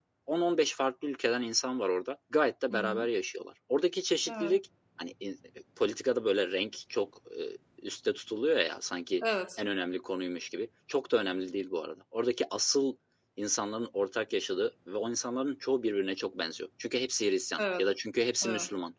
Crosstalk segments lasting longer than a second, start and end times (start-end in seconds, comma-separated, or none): none